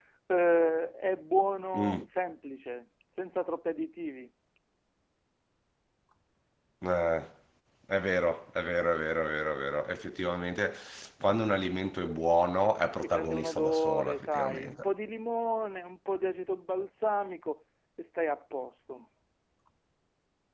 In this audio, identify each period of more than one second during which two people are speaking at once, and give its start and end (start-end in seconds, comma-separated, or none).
13.0-14.8